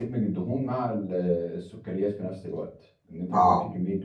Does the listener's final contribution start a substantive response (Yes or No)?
No